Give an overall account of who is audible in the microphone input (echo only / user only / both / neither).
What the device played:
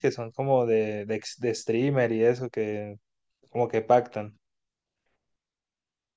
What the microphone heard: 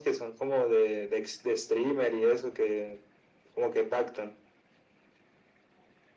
echo only